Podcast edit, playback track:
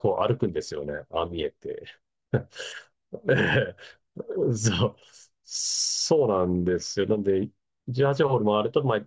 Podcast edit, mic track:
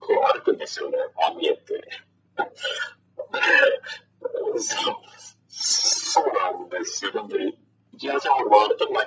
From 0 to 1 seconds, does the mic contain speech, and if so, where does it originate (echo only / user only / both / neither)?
echo only